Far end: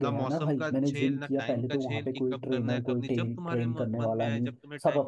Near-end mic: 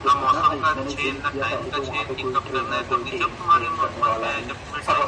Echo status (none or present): present